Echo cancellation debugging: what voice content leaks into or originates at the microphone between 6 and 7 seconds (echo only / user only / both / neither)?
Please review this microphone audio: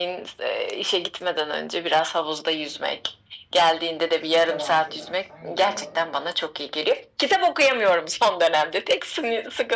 both